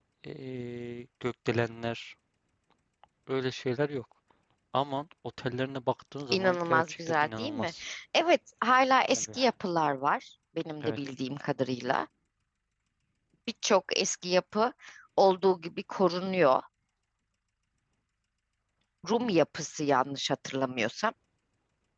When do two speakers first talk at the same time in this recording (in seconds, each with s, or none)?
6.3 s